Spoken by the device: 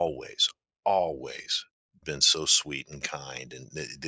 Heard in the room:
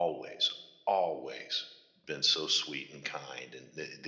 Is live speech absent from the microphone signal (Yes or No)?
Yes